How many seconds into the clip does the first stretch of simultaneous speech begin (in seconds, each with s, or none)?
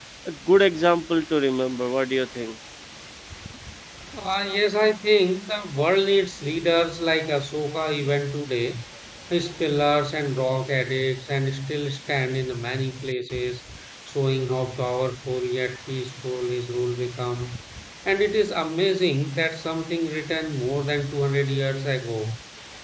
none